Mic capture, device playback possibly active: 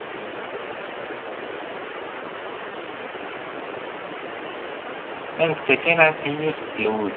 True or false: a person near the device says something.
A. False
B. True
B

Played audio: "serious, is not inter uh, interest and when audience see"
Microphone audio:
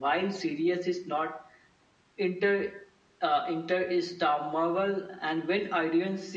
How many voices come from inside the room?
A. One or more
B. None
B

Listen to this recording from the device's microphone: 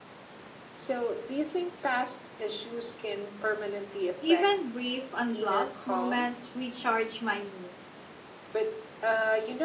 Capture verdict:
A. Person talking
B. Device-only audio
A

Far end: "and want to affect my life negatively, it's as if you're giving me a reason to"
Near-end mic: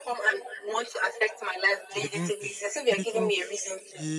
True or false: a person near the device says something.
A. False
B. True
B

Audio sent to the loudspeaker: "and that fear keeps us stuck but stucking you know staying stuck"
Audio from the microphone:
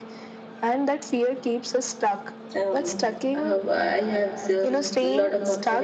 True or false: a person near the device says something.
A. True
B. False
A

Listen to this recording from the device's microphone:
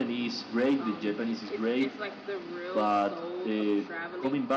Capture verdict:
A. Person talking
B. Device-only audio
A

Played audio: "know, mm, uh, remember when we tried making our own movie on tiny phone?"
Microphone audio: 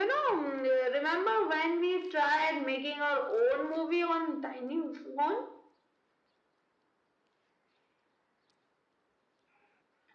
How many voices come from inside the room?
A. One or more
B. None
B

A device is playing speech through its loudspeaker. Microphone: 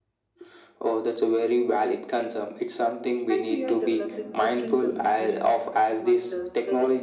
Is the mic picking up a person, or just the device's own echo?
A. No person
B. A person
B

